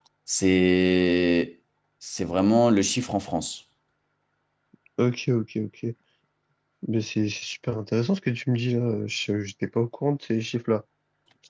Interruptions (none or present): none